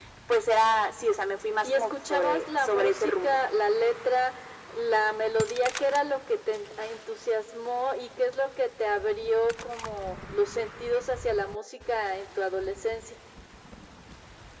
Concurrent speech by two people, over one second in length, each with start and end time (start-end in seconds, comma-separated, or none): 1.6-3.4